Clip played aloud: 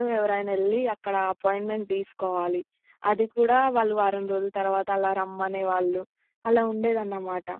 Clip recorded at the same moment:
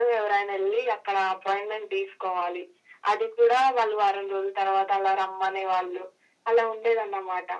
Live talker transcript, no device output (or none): none